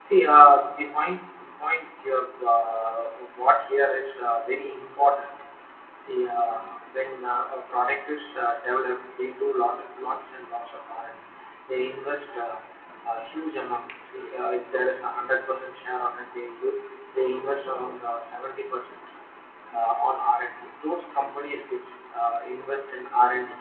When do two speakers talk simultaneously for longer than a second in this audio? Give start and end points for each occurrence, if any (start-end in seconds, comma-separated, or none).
none